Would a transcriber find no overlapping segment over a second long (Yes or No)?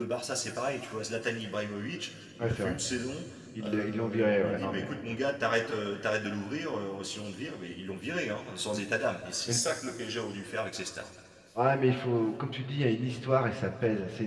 No